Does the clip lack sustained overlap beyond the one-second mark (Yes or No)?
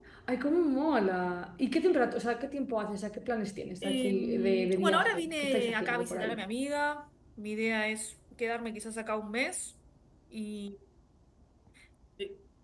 No